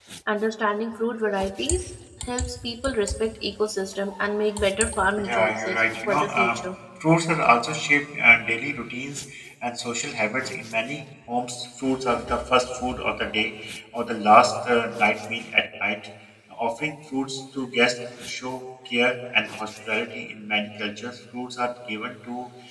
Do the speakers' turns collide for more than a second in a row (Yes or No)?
Yes